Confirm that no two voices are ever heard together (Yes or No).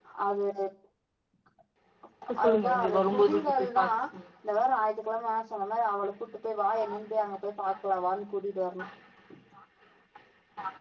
No